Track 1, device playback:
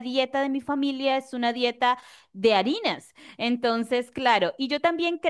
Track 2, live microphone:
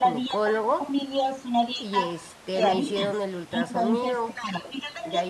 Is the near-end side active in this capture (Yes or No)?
Yes